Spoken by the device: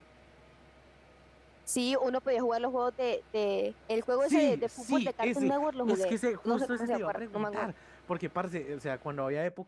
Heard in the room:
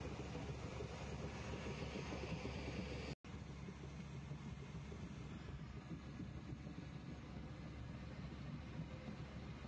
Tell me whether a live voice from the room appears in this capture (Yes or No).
No